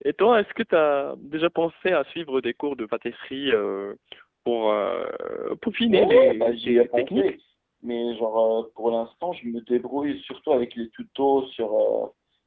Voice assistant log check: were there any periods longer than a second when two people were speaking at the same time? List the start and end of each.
5.9-7.2

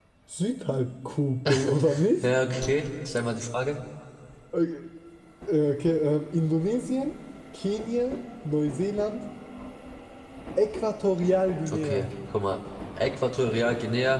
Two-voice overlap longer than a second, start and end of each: none

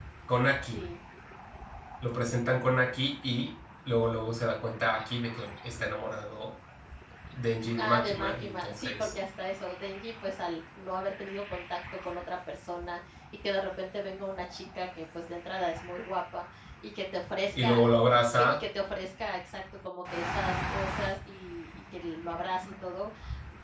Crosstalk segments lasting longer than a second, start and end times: 7.8-9.1

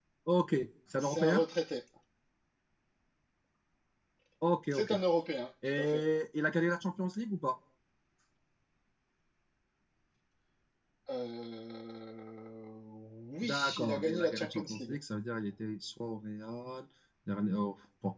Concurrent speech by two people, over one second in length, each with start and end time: 13.4-15.0

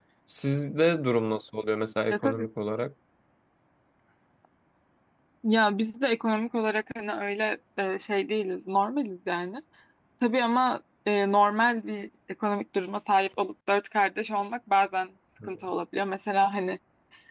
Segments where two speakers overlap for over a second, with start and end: none

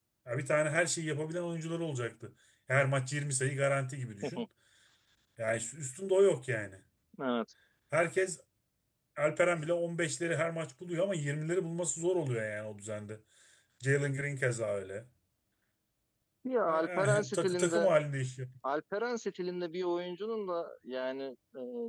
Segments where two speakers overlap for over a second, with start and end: 16.7-17.9

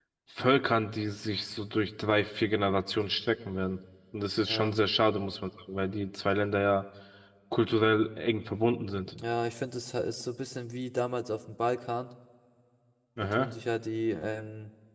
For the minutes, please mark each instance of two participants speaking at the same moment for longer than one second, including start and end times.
none

